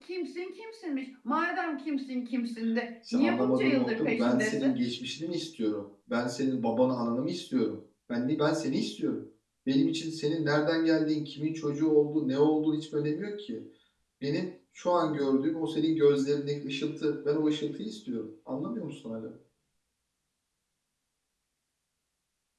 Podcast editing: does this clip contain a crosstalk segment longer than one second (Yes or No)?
Yes